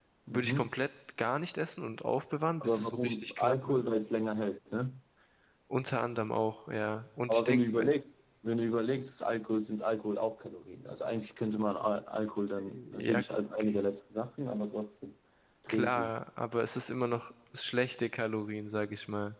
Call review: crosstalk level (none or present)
present